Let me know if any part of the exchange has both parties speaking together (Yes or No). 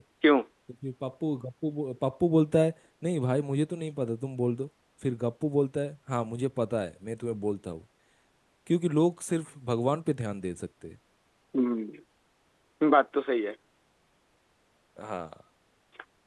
No